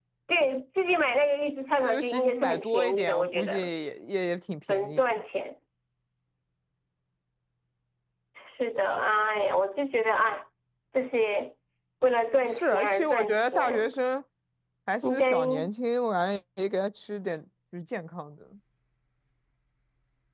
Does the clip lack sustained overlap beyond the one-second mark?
No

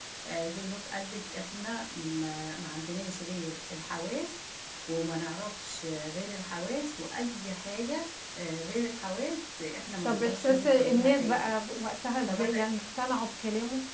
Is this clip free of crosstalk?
No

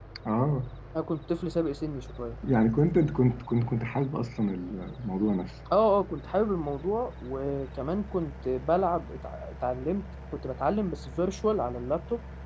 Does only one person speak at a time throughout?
Yes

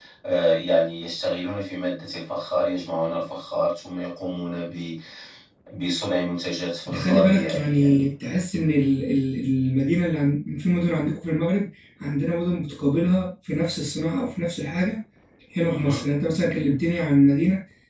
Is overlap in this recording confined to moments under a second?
No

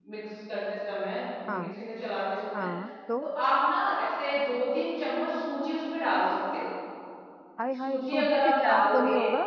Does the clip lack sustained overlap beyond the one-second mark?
No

